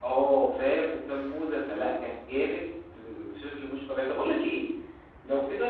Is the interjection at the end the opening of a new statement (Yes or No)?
No